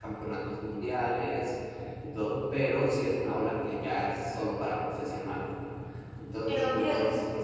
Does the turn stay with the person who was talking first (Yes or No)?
Yes